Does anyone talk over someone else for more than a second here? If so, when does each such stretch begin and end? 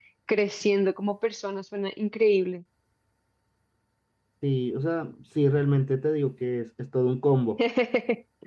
none

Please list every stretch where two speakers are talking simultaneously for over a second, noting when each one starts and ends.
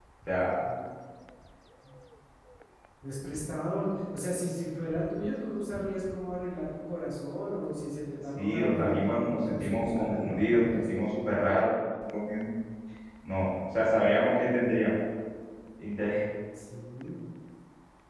8.4-10.8

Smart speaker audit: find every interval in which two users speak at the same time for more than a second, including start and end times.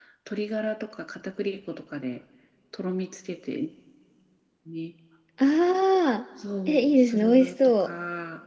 6.7-7.9

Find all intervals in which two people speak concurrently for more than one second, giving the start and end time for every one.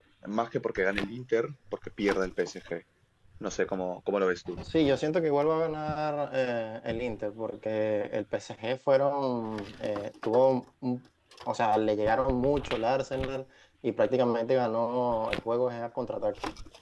none

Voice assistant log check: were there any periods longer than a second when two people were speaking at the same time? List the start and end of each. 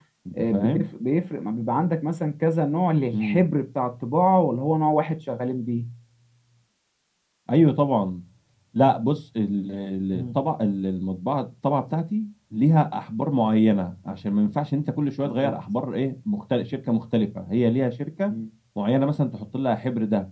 none

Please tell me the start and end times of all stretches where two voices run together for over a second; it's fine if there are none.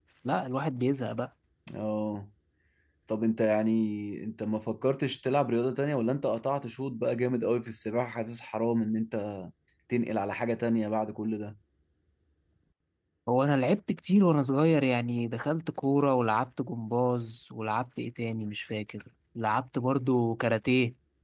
none

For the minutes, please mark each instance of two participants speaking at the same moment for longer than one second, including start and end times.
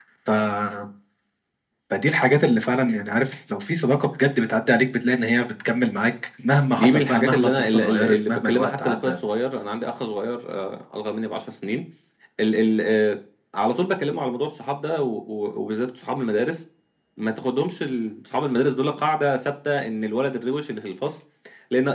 6.8-9.2

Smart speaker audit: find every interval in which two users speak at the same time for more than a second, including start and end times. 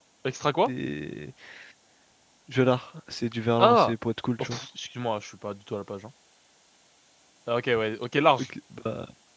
none

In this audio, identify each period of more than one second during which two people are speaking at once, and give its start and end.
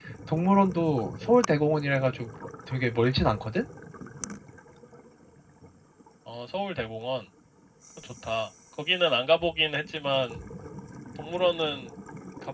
none

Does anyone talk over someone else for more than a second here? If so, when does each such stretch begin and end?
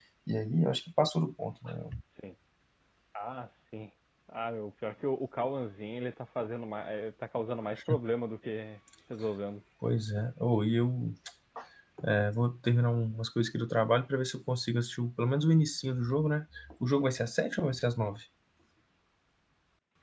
none

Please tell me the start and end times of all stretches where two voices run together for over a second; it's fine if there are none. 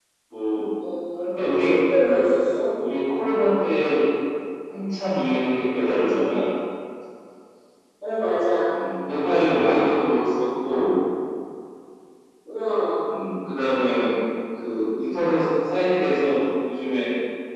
none

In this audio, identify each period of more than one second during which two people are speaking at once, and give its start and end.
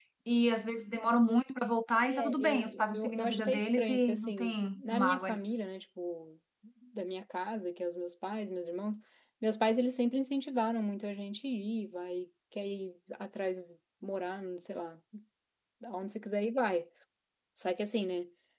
2.0-5.4

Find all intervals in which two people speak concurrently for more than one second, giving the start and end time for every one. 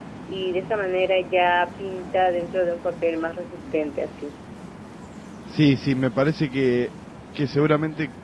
none

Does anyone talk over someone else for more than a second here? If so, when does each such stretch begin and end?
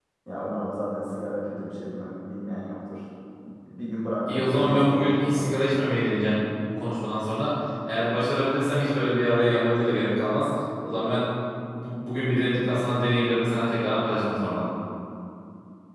4.3-5.5

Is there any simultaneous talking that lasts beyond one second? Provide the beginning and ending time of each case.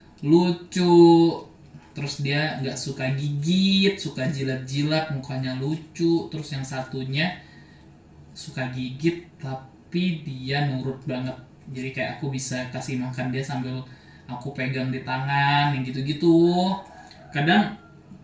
none

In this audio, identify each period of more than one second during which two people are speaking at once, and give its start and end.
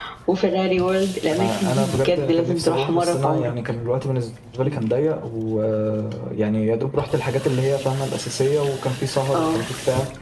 1.3-3.5

